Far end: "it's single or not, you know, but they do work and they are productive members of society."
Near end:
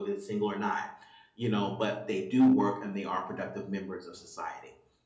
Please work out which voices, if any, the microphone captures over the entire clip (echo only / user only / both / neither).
echo only